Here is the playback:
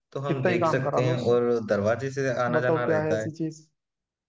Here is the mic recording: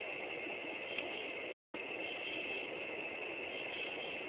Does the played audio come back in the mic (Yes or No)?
No